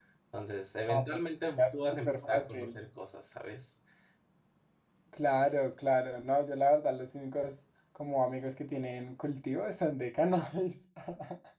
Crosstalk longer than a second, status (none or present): present